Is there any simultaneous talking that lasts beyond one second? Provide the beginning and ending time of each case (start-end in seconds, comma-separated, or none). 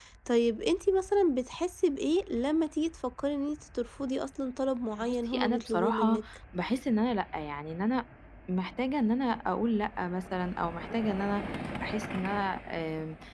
5.0-6.2